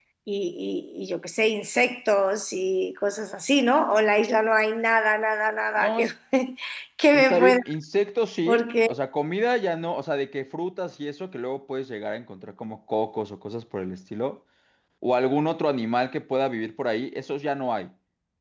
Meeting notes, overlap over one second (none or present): none